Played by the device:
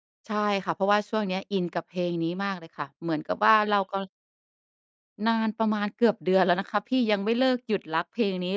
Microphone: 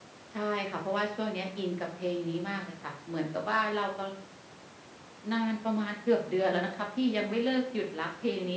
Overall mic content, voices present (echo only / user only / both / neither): echo only